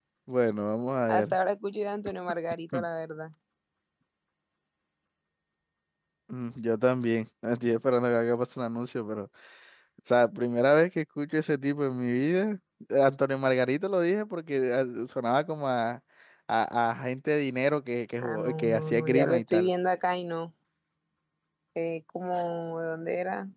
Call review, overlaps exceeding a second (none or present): present